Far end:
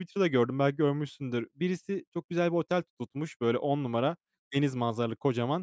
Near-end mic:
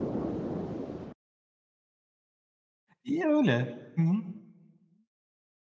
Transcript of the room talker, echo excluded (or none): iyi öyle. Hı hı.